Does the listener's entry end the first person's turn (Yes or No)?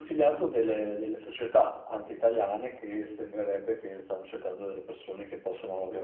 No